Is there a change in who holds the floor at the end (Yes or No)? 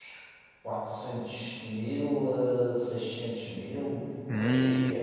Yes